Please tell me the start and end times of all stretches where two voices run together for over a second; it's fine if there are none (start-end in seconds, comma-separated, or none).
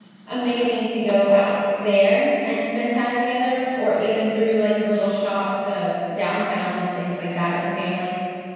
none